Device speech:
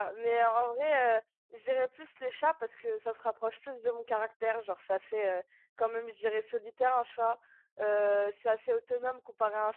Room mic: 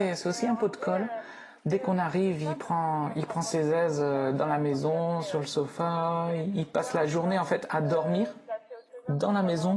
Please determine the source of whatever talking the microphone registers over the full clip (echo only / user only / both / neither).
both